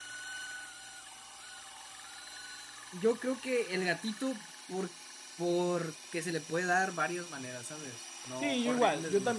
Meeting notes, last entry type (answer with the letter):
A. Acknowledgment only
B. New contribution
B